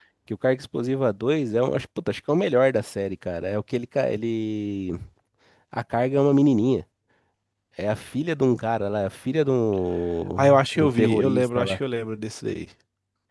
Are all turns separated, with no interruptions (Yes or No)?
No